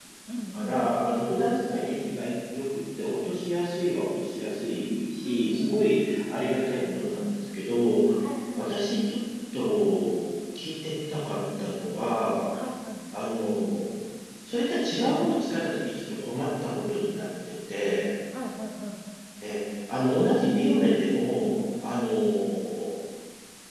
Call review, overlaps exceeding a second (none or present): none